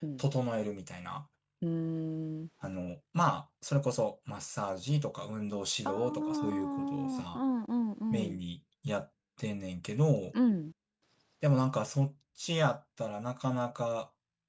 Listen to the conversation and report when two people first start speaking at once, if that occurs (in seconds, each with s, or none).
5.8 s